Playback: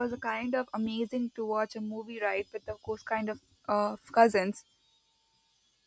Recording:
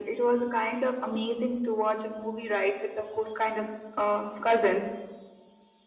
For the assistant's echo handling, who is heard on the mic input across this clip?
echo only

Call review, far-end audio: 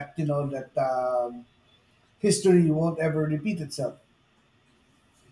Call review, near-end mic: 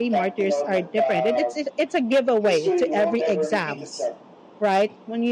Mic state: both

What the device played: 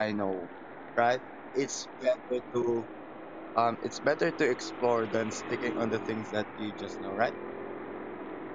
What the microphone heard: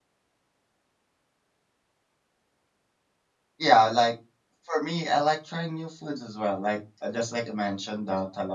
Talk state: user only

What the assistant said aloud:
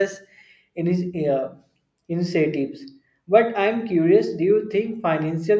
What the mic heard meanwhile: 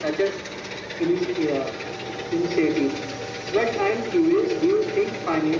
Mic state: echo only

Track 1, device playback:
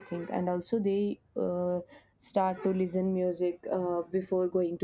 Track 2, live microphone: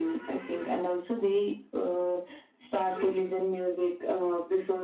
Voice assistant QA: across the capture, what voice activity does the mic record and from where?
echo only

